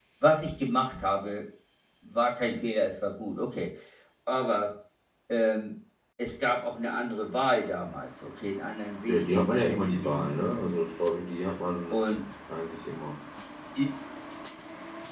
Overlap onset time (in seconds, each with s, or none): 9.1 s